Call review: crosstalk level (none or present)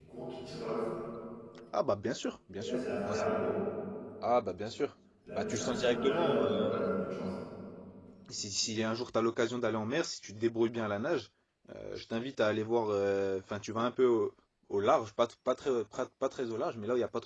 present